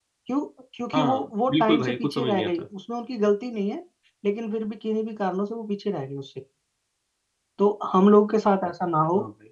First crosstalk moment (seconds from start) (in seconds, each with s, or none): 0.9 s